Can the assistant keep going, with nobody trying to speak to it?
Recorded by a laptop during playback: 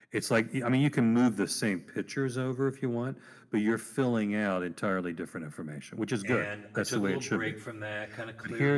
No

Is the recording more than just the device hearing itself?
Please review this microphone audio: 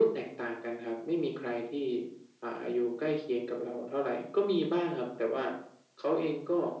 No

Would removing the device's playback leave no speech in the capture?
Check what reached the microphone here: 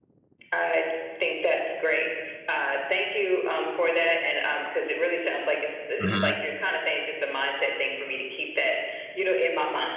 No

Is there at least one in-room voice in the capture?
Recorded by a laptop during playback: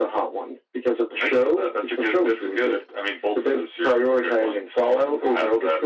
No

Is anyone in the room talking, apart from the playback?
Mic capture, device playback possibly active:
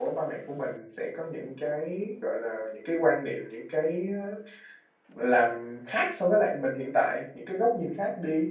Yes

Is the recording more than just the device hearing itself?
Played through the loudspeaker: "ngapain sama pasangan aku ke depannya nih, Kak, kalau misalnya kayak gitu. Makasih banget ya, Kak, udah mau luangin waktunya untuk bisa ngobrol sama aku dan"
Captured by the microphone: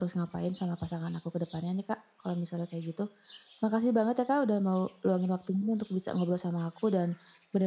No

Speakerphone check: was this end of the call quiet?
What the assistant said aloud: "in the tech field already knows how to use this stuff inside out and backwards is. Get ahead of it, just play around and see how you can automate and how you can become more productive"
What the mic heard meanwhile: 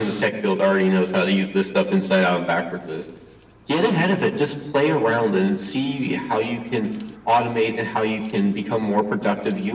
Yes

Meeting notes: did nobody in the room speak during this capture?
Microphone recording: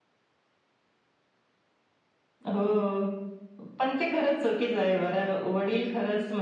Yes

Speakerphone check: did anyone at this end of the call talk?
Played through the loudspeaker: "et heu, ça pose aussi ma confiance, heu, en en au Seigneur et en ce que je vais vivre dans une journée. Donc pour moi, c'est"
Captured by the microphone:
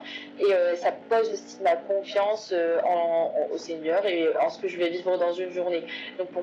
No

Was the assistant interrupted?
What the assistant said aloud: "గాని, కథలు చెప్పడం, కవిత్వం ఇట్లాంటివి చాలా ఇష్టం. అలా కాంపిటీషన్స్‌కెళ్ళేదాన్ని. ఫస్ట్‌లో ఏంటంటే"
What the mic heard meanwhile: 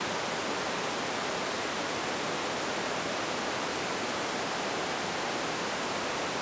No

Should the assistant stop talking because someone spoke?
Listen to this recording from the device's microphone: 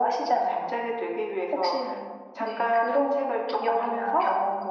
No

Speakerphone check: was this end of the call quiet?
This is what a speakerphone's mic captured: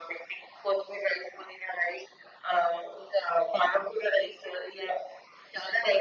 Yes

